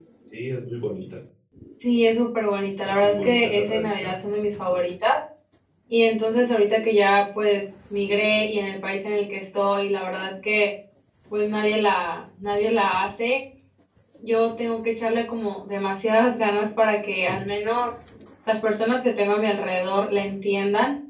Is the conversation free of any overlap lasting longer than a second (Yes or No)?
No